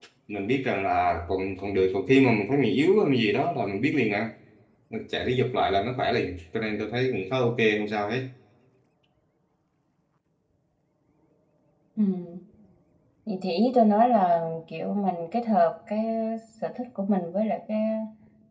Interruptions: none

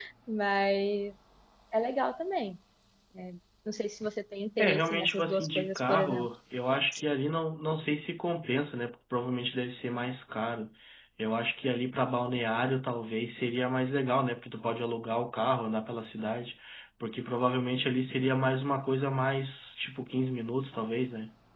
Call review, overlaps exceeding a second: present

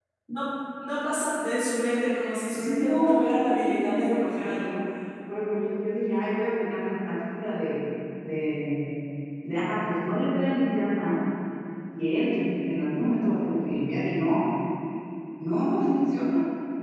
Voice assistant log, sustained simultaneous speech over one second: present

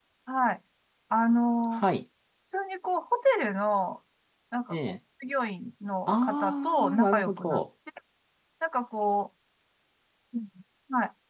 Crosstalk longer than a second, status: present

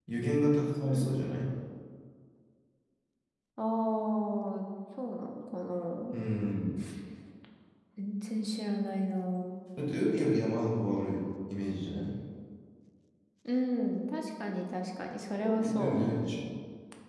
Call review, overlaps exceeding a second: none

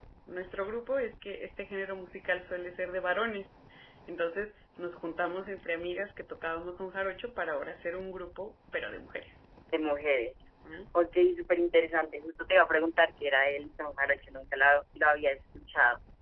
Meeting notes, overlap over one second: none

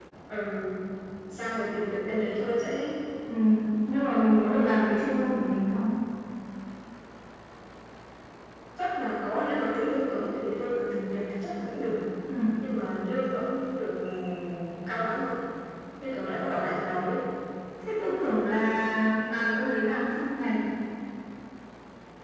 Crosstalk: none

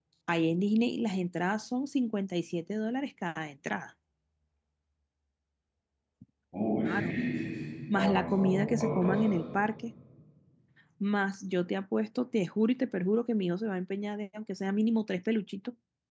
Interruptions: present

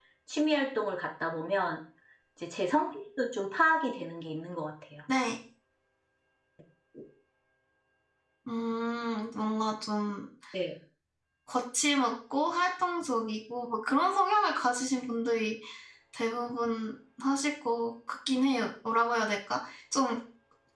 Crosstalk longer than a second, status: none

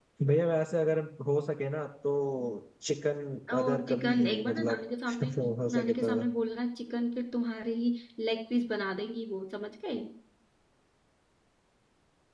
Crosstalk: present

